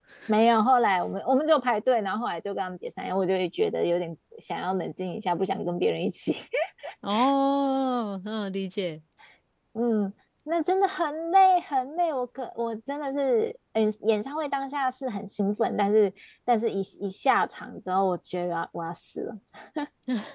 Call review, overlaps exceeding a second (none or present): none